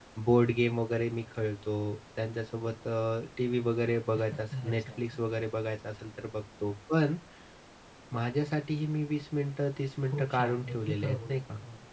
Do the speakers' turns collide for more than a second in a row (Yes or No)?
Yes